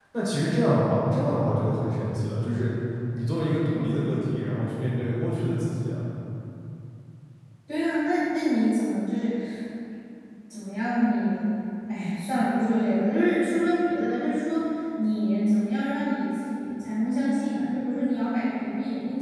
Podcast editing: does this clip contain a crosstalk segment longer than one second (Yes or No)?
No